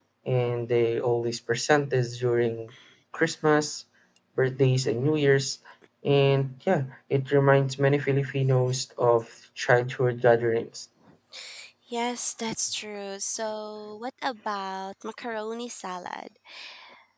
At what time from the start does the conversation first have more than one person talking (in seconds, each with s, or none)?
none